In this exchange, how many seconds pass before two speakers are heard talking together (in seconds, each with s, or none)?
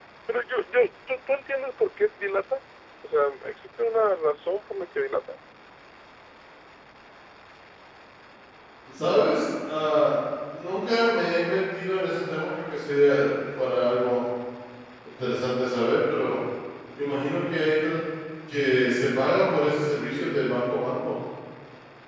none